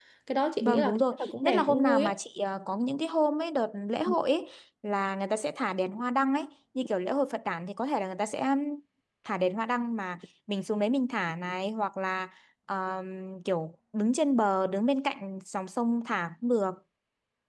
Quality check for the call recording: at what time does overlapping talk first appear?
0.6 s

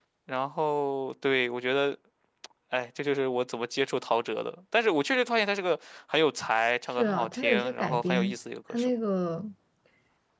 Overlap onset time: 7.0 s

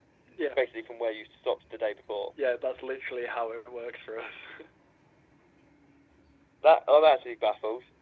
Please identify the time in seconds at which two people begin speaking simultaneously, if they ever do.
none

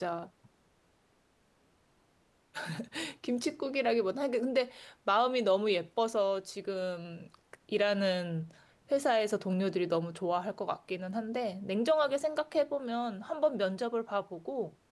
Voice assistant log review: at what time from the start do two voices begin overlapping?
none

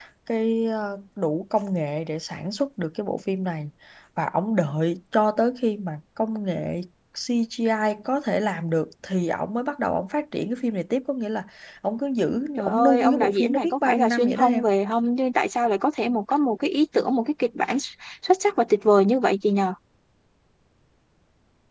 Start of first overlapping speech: 12.6 s

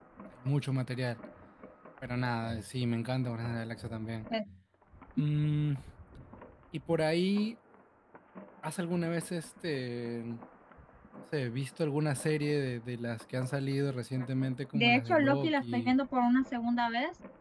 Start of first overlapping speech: 14.7 s

